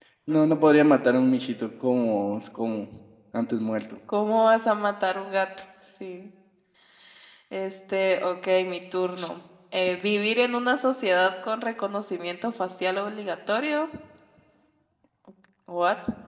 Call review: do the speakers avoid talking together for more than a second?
Yes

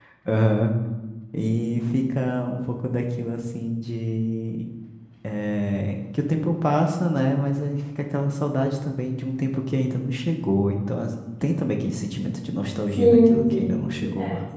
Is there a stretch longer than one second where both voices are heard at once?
Yes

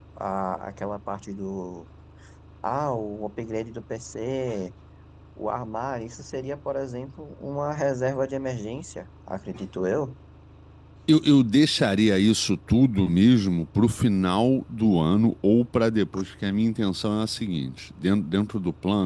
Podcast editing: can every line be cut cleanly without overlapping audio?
Yes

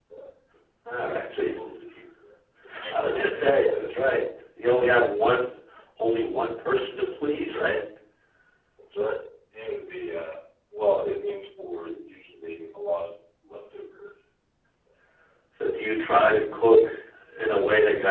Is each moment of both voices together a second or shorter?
No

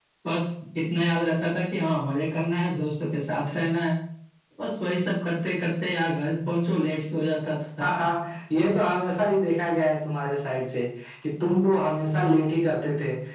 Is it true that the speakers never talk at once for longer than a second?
Yes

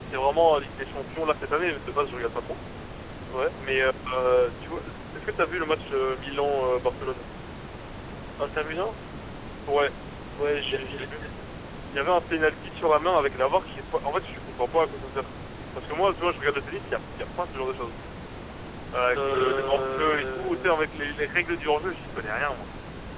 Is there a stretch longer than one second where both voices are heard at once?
Yes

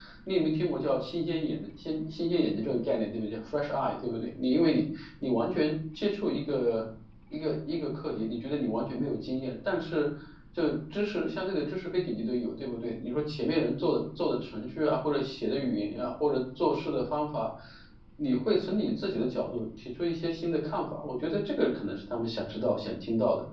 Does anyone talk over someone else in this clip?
No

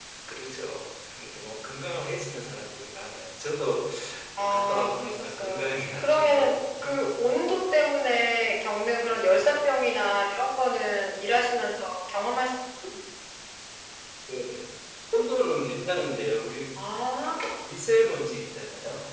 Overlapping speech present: Yes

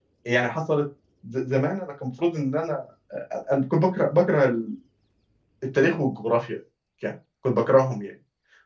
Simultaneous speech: No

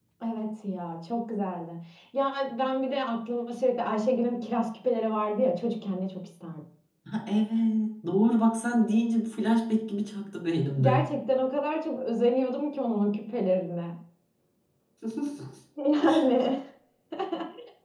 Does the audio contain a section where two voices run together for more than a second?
No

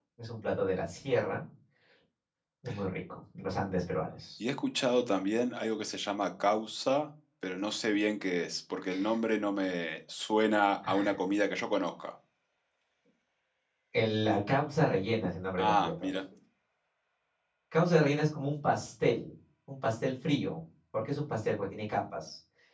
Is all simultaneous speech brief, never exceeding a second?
Yes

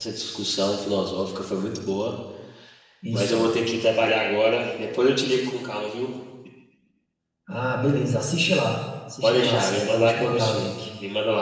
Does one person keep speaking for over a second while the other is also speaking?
Yes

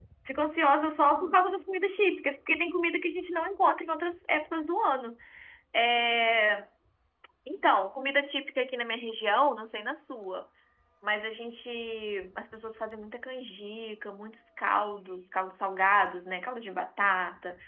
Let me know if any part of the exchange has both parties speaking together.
No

